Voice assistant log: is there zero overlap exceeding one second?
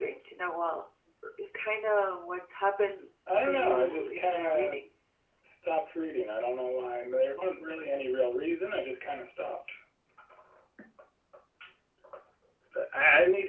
No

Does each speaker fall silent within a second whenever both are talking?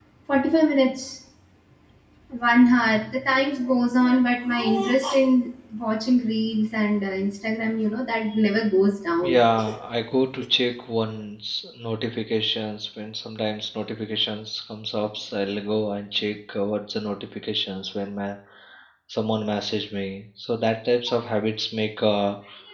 Yes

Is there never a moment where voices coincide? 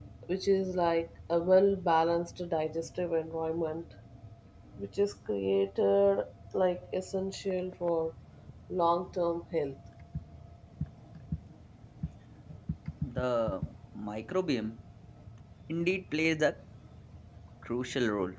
Yes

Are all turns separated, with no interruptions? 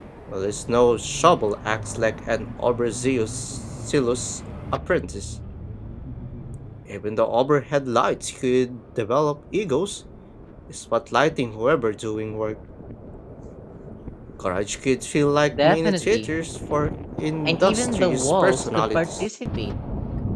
No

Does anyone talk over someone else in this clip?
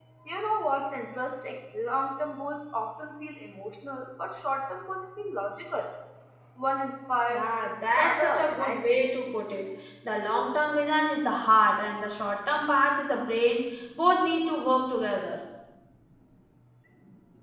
Yes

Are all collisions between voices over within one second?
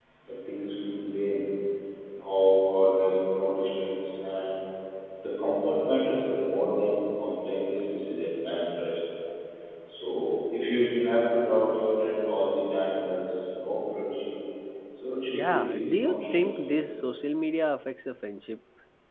No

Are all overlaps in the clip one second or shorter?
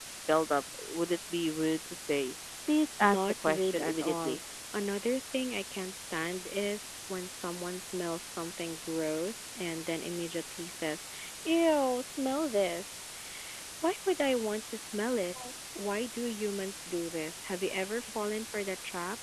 No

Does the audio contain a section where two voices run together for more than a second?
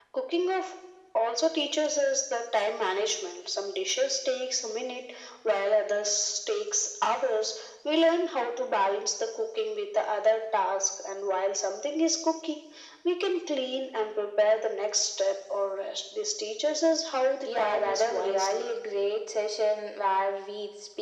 Yes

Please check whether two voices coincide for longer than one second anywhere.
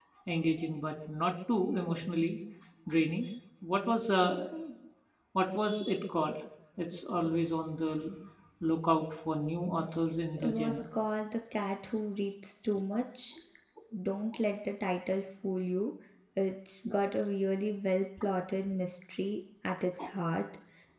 No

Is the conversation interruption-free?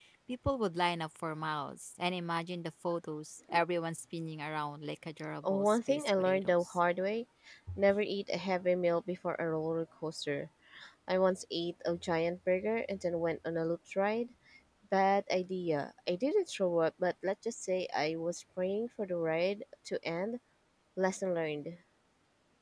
No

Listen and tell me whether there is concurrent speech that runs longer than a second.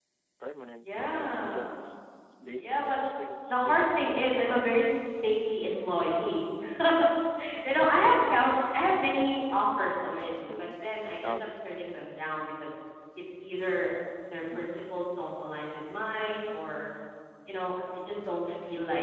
Yes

